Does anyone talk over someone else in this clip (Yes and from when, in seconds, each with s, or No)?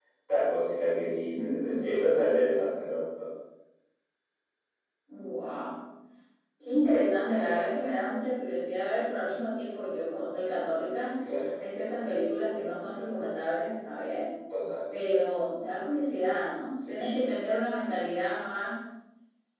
Yes, from 1.0 s